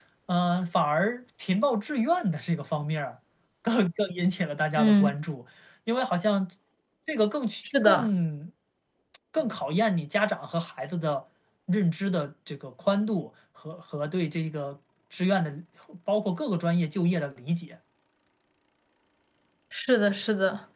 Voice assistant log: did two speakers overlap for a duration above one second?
No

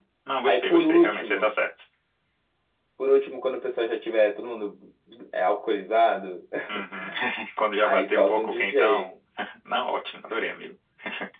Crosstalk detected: Yes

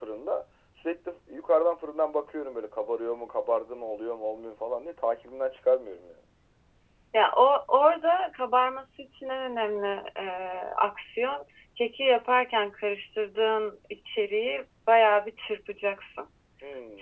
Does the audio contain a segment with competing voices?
No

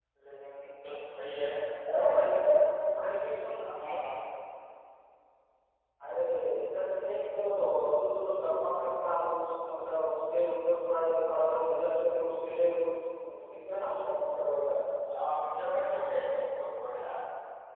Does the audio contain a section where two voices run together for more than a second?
No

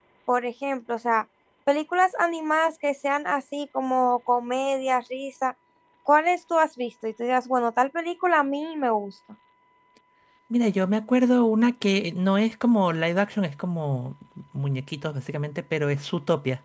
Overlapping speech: No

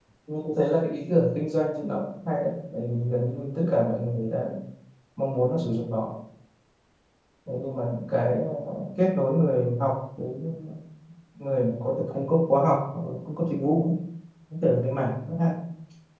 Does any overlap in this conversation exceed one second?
No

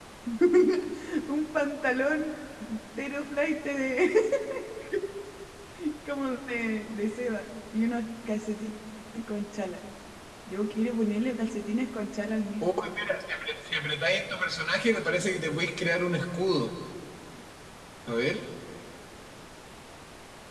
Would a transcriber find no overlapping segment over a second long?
Yes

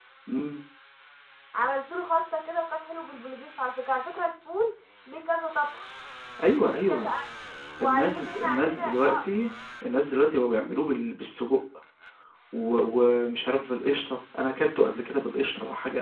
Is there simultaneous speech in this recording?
Yes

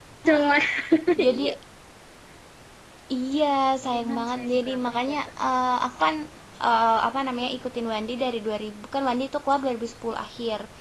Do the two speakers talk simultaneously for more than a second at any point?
Yes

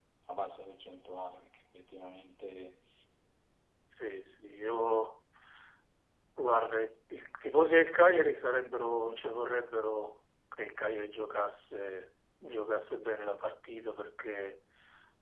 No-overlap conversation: Yes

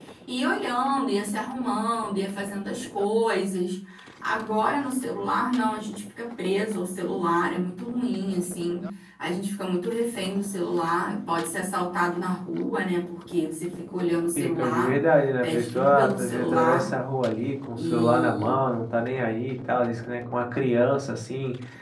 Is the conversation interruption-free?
No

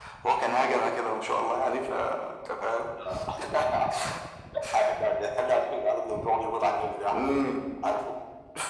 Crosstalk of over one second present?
No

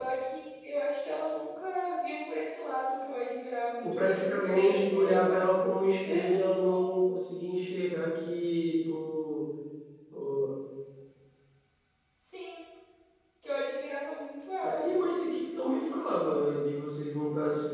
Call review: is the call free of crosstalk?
No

